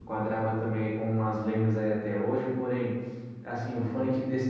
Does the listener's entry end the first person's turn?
No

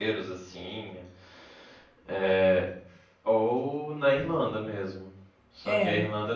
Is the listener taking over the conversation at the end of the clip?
No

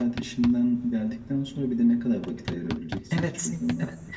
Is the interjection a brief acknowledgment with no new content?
No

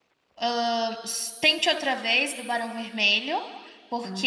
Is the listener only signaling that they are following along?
Yes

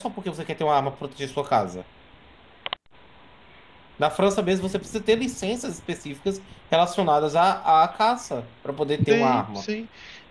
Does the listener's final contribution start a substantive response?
Yes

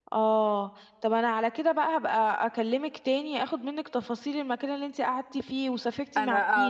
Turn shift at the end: Yes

